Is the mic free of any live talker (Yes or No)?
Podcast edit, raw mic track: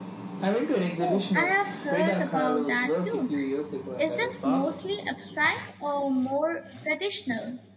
No